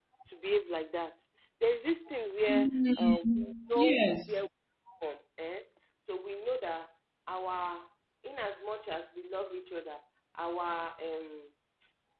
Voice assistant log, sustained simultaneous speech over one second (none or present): present